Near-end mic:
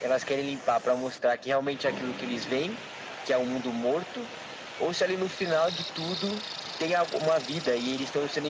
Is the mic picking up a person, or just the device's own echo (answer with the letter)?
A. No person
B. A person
A